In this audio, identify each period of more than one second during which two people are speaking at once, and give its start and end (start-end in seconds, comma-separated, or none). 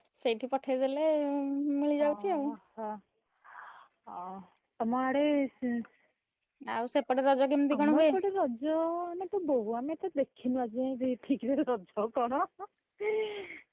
none